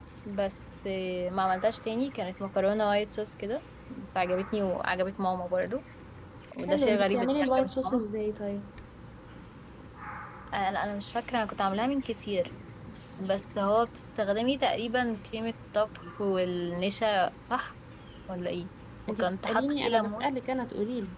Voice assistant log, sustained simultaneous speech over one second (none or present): present